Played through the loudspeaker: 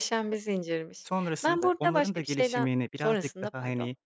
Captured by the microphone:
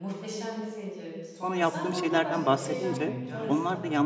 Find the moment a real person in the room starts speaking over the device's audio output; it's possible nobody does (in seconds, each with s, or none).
1.4 s